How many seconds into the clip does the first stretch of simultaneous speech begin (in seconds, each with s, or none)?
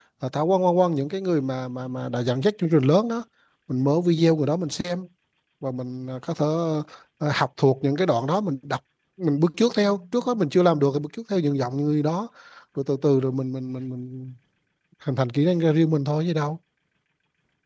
none